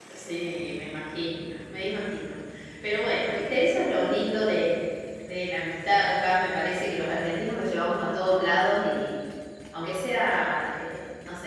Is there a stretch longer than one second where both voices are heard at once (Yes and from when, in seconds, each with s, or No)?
No